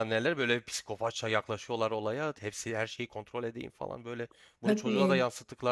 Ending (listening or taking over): listening